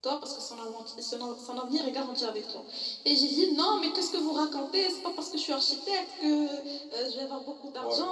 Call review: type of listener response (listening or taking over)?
listening